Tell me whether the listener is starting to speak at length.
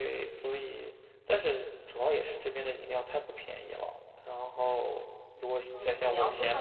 Yes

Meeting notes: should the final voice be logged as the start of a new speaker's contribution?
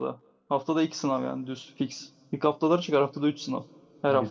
Yes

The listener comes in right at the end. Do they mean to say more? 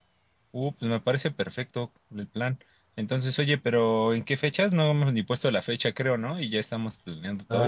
Yes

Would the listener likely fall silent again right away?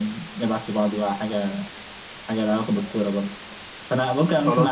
Yes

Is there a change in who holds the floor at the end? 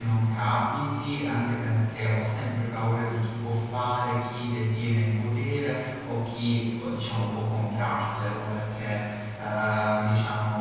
No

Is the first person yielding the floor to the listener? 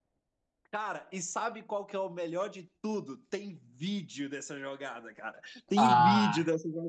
No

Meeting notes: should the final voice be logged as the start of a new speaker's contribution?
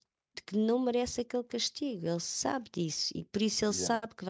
No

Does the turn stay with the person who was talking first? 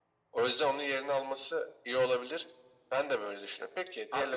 No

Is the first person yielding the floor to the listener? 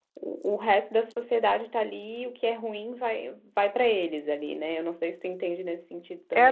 Yes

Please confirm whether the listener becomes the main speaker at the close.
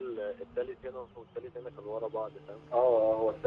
Yes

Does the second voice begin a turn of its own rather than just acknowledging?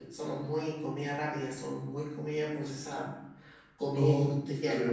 Yes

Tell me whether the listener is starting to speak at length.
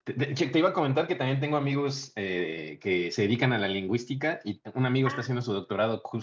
No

